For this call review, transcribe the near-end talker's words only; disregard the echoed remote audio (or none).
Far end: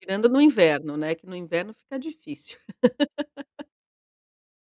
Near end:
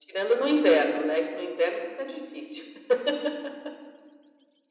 none